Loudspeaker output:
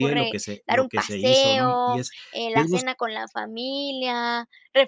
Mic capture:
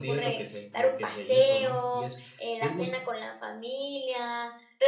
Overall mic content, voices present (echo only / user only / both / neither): echo only